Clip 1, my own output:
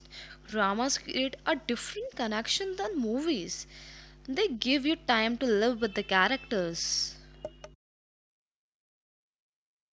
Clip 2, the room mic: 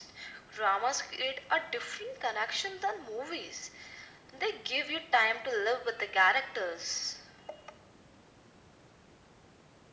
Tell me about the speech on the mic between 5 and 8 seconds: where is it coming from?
echo only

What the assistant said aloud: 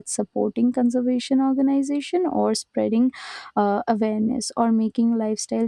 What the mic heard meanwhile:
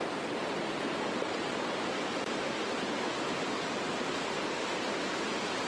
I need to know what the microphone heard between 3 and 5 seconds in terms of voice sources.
neither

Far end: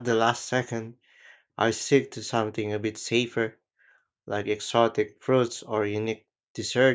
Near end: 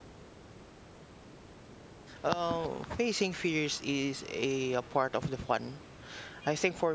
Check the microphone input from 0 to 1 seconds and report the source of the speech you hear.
neither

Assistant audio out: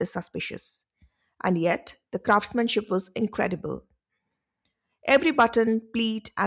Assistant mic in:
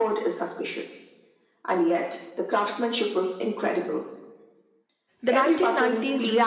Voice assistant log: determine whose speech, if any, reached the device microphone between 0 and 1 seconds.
echo only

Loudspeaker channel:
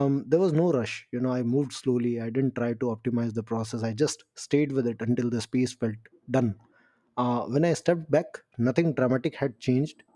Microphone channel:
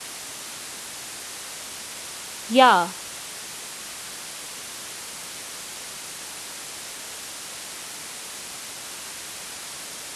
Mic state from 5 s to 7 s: neither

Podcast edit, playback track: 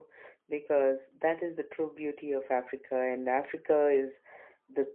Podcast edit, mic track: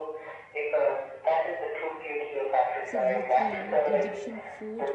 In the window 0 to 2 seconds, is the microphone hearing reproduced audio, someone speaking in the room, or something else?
echo only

